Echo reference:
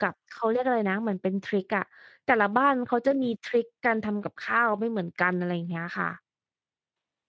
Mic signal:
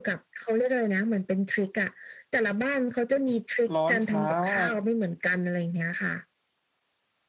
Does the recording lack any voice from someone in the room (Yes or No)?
No